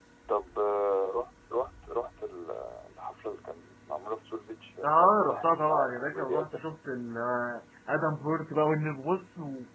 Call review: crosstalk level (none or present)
present